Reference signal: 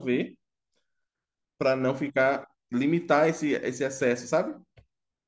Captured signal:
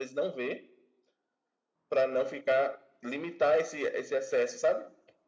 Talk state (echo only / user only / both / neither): echo only